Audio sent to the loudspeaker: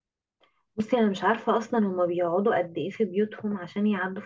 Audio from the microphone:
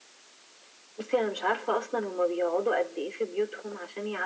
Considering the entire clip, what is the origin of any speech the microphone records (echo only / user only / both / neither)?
echo only